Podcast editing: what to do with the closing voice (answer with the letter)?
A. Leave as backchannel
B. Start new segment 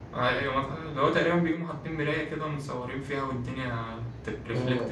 B